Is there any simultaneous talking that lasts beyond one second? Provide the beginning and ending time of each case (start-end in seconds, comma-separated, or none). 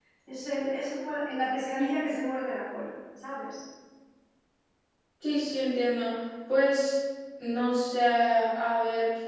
none